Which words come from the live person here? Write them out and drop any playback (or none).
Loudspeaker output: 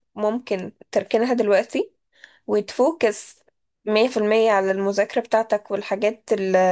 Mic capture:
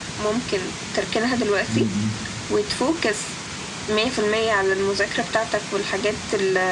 مم.